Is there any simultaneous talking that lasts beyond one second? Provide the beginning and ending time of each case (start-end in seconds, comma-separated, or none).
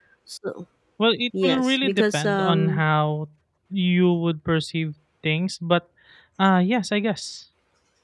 1.4-2.8